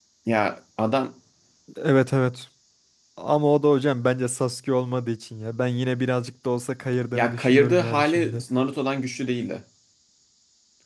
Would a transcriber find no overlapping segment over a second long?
No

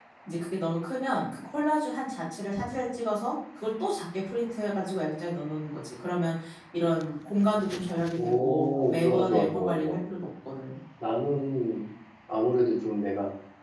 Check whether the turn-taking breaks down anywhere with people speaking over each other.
Yes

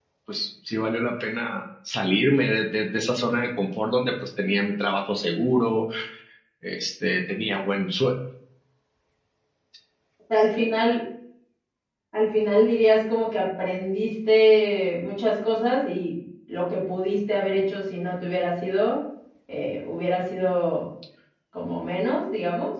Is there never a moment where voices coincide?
Yes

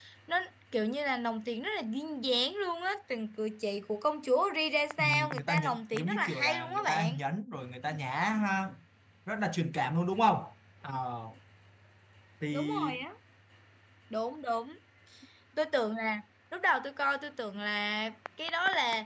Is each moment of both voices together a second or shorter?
No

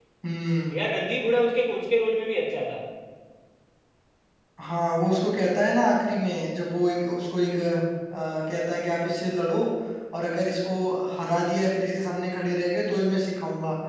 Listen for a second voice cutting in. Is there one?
No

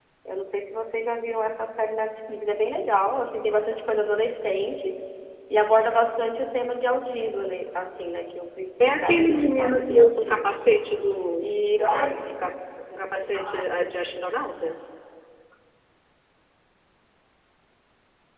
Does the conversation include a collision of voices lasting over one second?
Yes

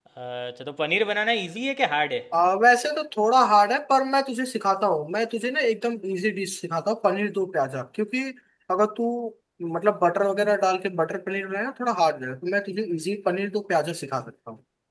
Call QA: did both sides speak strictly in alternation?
Yes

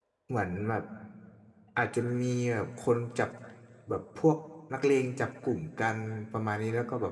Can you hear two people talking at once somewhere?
No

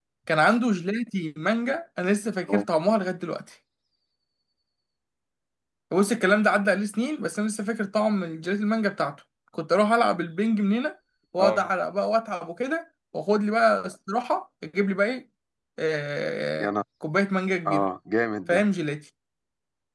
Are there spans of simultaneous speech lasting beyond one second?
No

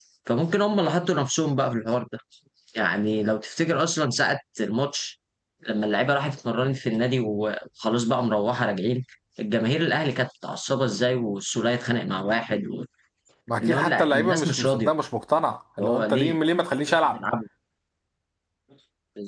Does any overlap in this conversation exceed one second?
Yes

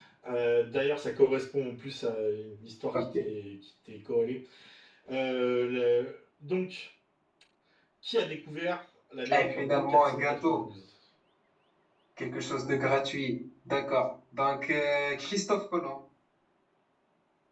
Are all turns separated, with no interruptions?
No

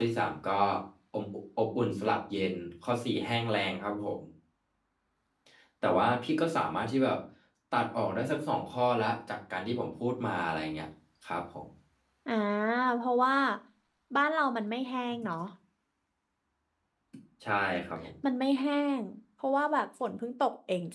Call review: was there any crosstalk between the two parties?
No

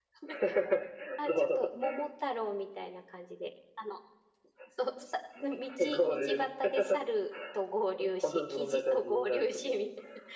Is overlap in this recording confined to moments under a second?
No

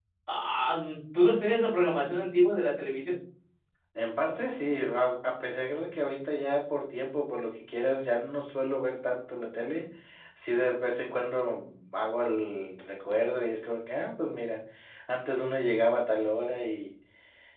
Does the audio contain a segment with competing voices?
No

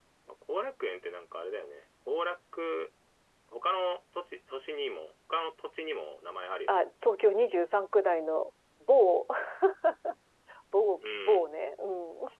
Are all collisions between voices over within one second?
Yes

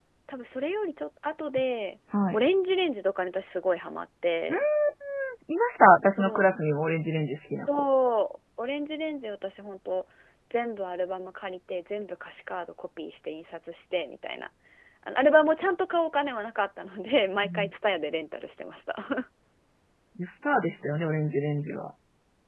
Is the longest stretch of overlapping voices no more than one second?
Yes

